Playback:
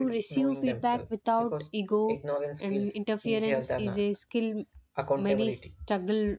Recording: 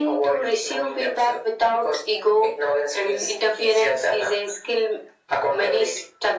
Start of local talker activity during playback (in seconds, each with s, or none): none